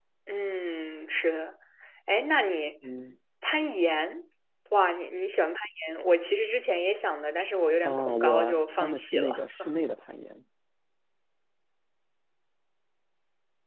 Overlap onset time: 8 s

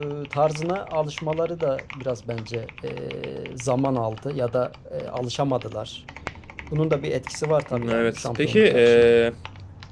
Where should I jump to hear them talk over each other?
8 s

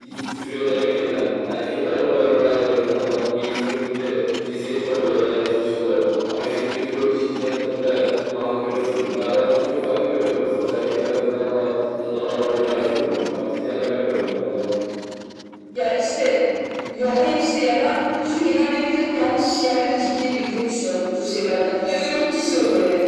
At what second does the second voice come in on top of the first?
none

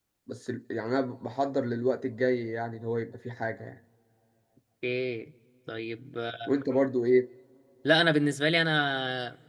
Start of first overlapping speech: none

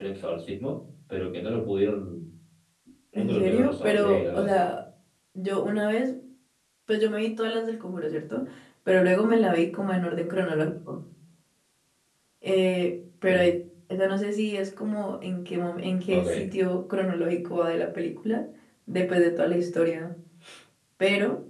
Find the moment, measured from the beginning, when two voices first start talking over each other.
3 s

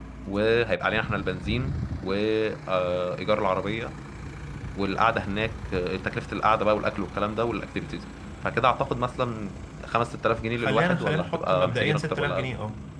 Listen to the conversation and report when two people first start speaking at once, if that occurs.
11 s

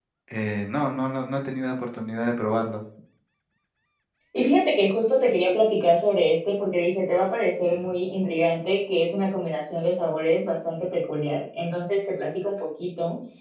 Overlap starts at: none

